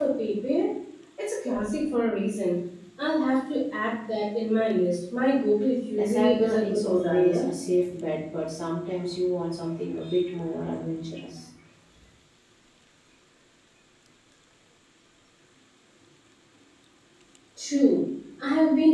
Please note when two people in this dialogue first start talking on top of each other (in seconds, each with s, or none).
5.9 s